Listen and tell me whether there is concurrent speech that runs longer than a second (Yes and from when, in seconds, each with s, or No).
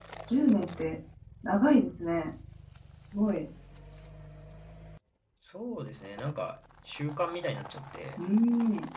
No